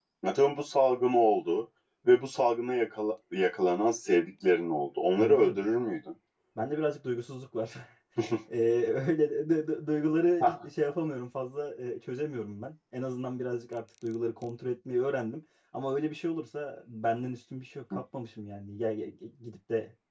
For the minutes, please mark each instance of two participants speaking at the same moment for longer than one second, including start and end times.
none

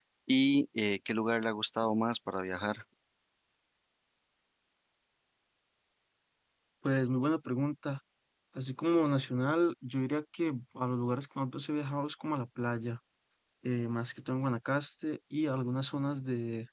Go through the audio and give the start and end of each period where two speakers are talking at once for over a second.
none

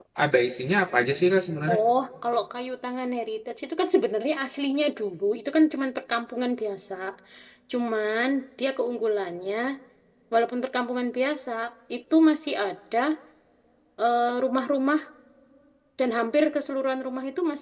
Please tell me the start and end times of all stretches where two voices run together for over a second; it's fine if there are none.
none

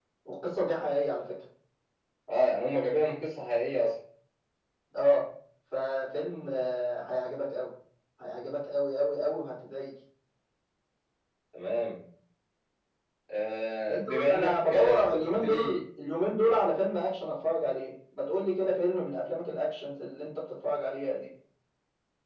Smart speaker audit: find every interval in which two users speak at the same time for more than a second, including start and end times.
13.9-15.8

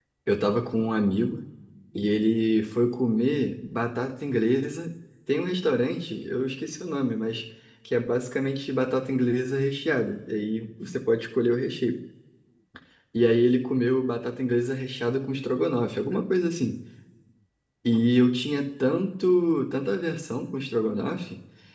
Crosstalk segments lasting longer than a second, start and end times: none

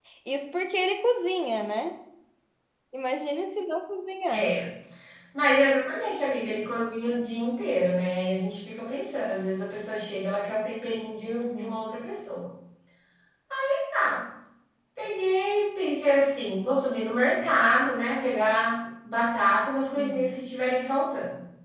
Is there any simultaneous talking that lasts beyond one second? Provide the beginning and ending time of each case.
none

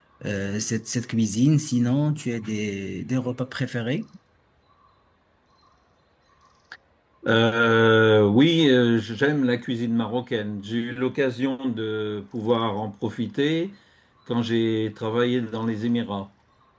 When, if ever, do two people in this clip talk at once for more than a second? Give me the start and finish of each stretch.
none

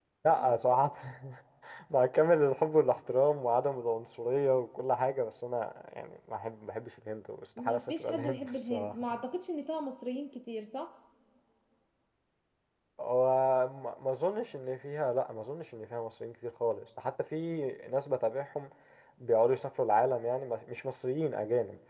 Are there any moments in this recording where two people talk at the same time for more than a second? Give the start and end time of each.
7.6-8.9

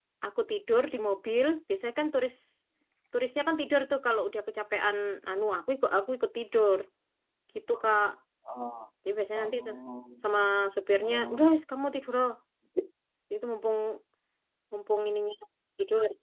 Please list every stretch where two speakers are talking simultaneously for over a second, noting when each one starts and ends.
none

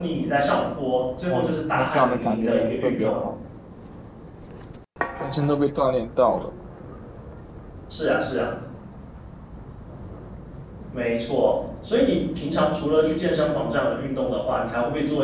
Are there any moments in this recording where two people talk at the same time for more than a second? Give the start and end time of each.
1.3-3.3

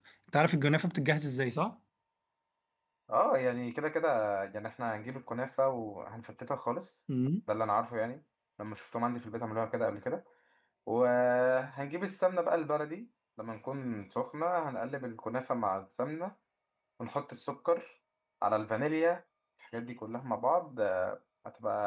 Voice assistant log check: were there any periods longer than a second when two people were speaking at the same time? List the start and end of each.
none

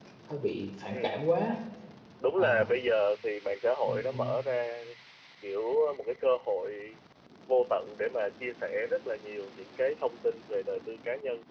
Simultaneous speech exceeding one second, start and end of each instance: none

